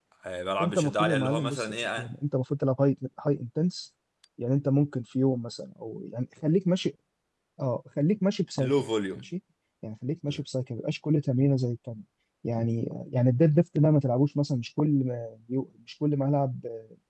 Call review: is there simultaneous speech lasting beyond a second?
Yes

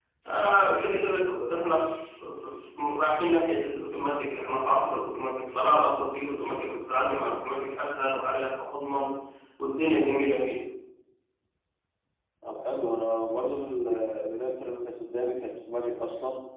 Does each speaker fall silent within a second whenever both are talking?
Yes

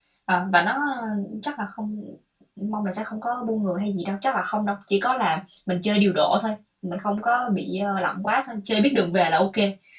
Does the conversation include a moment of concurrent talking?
No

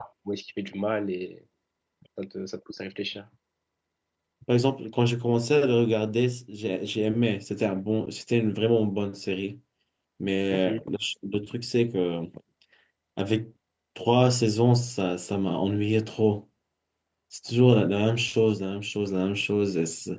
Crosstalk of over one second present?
No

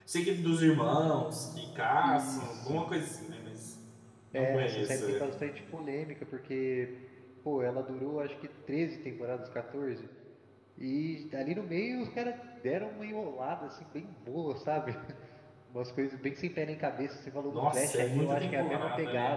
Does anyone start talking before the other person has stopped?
Yes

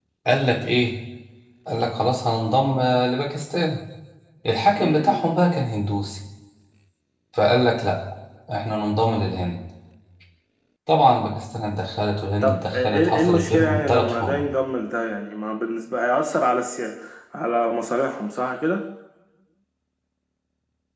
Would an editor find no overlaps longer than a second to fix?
No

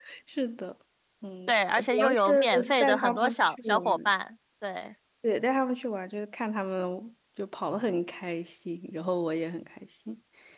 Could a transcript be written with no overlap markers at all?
No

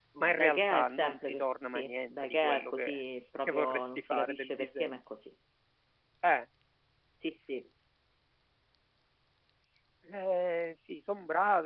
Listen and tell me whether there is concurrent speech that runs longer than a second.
Yes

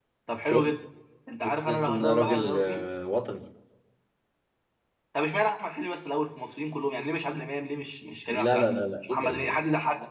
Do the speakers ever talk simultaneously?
Yes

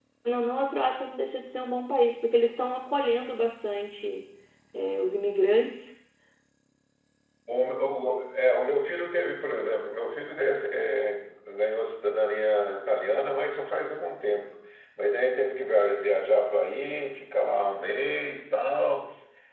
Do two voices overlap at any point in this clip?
No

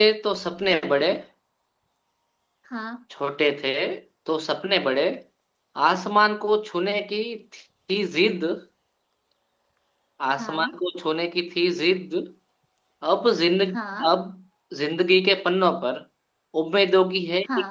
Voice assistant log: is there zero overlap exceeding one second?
Yes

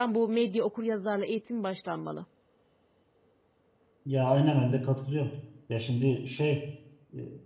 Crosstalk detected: No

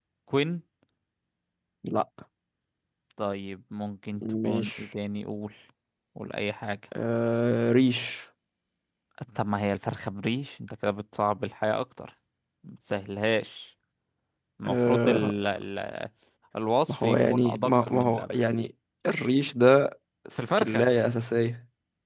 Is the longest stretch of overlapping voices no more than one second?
No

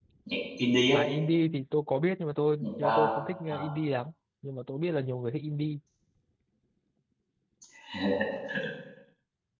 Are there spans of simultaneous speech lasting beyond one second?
No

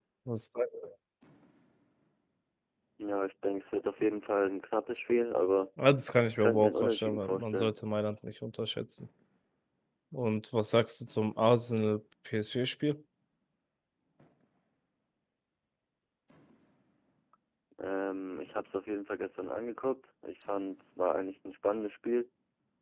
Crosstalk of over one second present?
Yes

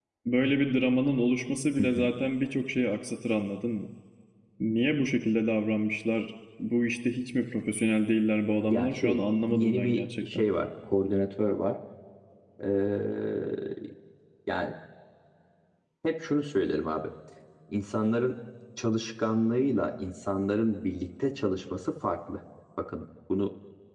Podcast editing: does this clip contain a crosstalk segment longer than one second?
Yes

